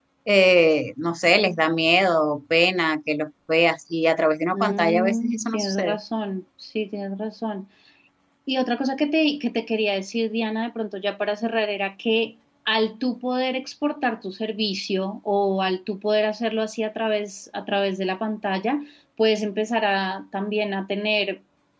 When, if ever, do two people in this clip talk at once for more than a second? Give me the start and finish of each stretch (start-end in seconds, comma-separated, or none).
4.5-6.0